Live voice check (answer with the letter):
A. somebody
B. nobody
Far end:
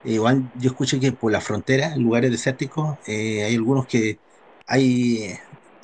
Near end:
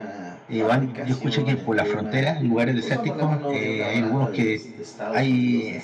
A